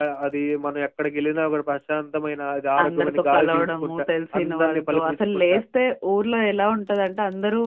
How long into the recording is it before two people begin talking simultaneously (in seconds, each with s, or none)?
2.8 s